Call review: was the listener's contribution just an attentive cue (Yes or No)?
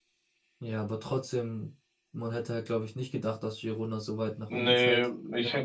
No